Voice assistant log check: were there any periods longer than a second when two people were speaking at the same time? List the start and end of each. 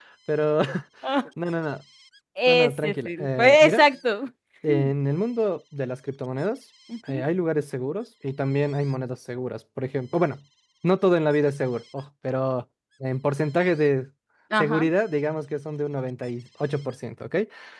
2.5-3.8

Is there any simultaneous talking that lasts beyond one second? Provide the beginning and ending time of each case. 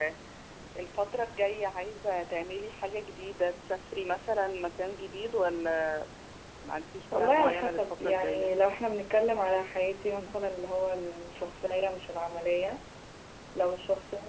7.1-8.5

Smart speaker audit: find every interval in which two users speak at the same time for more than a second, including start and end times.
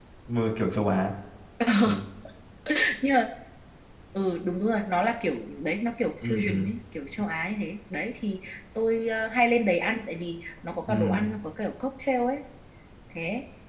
none

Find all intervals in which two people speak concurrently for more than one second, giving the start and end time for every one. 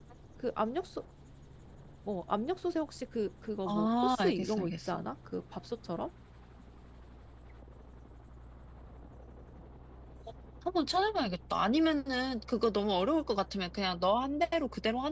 3.7-5.0

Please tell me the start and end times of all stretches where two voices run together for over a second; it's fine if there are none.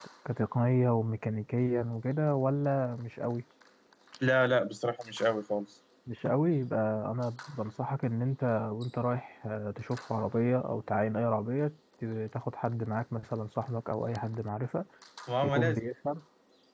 none

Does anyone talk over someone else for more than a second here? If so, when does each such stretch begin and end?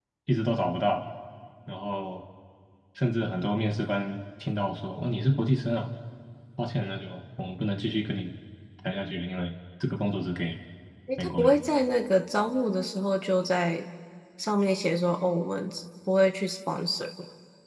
none

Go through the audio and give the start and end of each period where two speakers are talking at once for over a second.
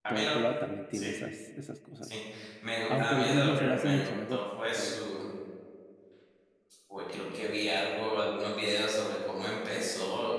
2.9-4.9

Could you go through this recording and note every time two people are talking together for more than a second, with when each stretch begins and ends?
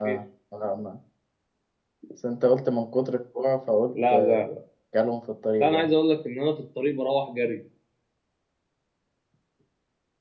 none

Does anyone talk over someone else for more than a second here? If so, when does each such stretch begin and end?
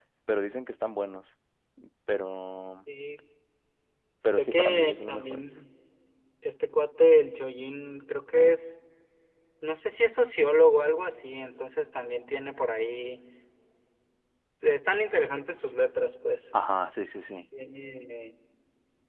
4.2-5.4

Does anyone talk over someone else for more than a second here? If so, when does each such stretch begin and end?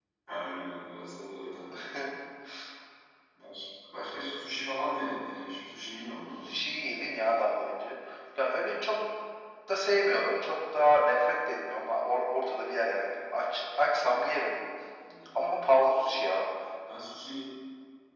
none

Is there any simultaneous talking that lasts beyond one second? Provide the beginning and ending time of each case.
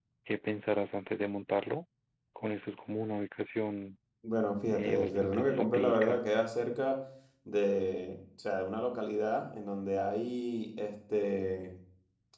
4.8-6.2

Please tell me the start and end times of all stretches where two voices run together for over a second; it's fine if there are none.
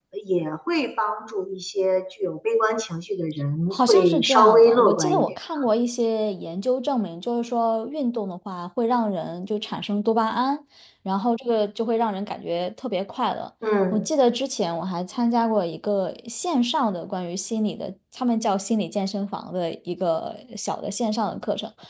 3.7-5.3

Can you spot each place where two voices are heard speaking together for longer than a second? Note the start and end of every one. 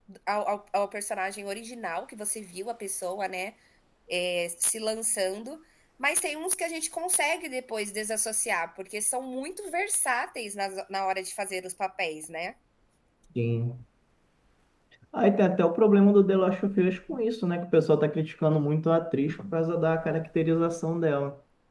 none

